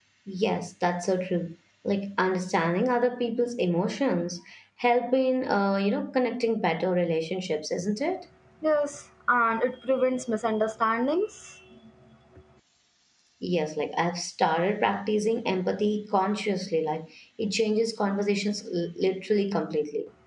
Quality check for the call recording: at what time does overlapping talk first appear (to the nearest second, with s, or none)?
none